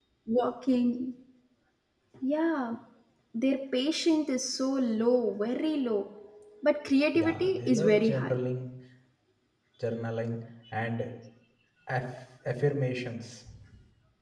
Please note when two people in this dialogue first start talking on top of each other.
7.2 s

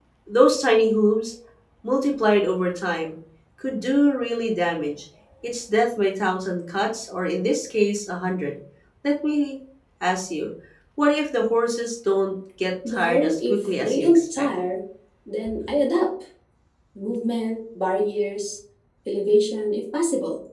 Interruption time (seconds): 12.8 s

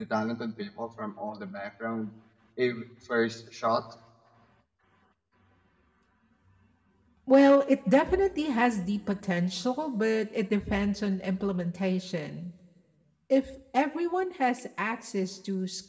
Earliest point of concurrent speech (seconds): none

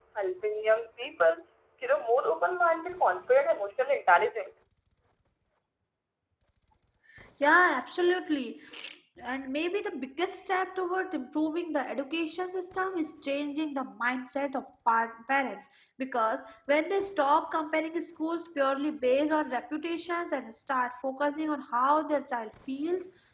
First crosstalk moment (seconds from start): none

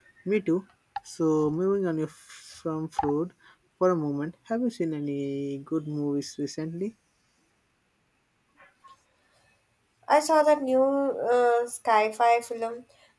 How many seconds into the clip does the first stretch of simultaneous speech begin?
none

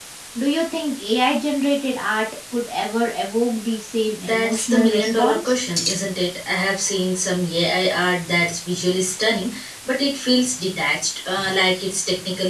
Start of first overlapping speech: 4.2 s

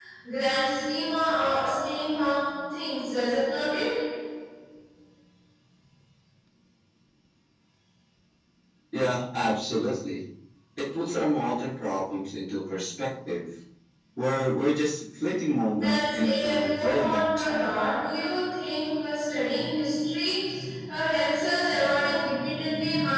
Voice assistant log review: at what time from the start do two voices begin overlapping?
15.8 s

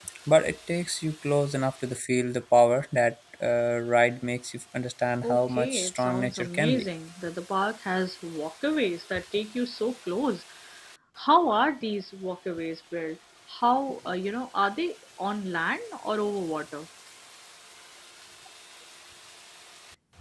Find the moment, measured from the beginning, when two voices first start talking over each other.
5.2 s

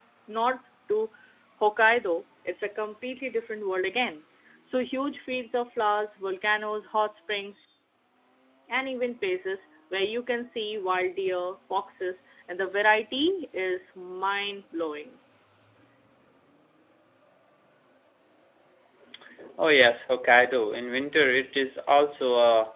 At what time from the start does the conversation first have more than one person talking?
none

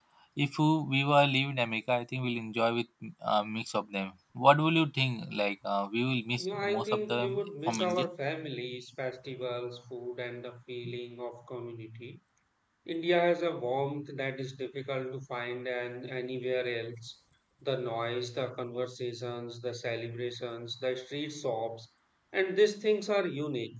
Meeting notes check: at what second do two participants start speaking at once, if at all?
6.4 s

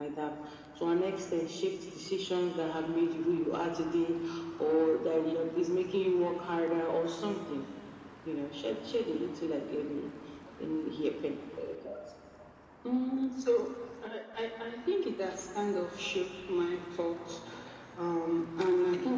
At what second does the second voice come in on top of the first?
none

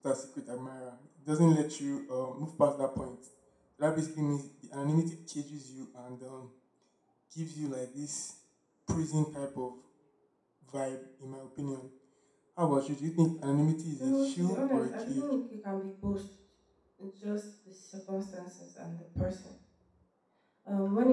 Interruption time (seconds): 14.0 s

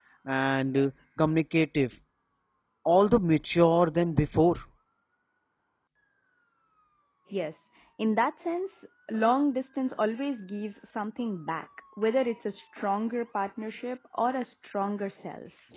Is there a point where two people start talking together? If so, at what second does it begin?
none

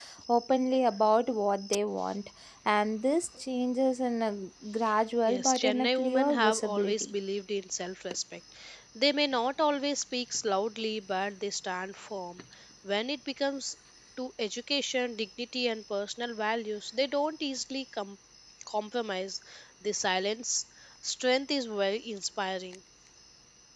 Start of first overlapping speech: 5.2 s

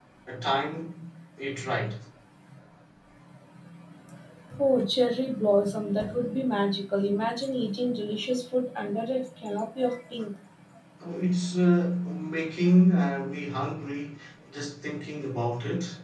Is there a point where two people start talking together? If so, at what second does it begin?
none

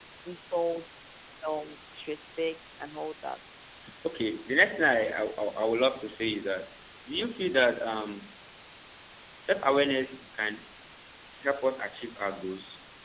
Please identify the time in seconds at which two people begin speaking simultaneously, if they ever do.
none

